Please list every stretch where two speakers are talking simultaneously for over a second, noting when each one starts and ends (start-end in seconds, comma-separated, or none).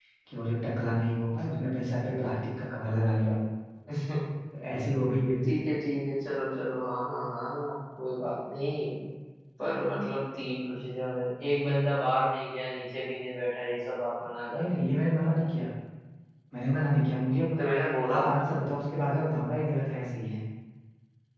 none